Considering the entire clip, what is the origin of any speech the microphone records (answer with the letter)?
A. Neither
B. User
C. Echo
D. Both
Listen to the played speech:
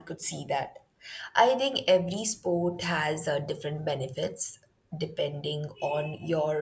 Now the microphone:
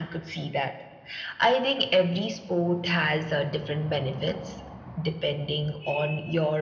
C